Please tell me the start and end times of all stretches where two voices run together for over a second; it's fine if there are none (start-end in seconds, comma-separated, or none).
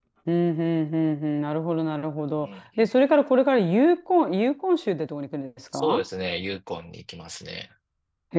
none